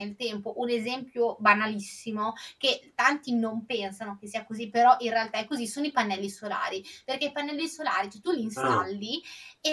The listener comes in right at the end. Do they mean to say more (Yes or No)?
No